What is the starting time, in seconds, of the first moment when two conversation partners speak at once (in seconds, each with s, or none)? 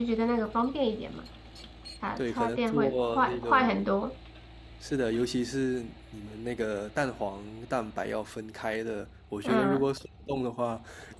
2.2 s